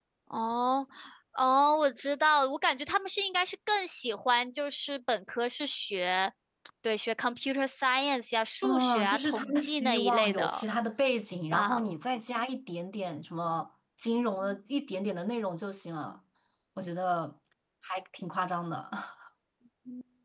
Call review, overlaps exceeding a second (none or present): present